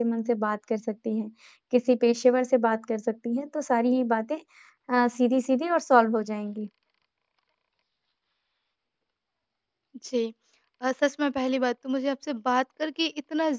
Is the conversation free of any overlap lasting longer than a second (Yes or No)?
Yes